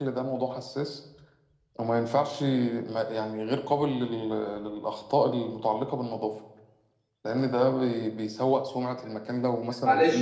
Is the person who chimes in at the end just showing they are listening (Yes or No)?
No